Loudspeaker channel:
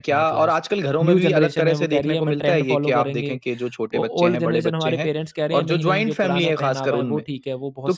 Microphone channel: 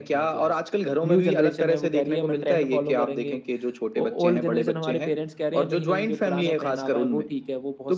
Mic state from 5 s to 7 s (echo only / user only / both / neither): echo only